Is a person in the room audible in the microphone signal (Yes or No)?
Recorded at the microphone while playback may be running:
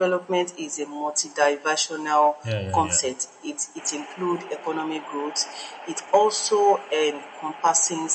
Yes